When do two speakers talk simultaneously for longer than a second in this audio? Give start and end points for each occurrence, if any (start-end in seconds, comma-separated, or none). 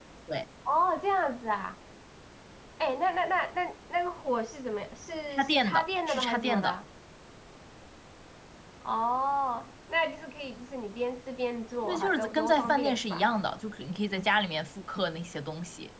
5.3-6.8, 11.8-13.3